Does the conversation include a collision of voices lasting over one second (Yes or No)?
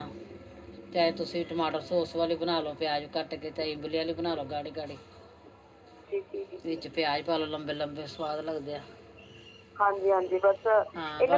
No